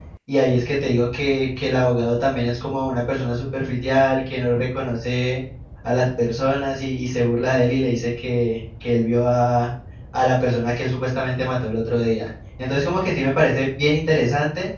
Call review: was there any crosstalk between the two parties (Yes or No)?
No